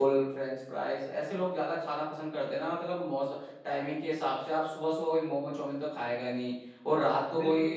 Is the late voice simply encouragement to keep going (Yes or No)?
Yes